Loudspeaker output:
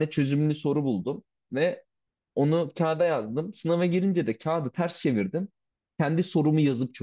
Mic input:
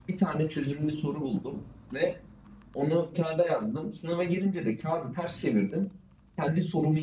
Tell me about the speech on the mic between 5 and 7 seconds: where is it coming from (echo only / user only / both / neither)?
echo only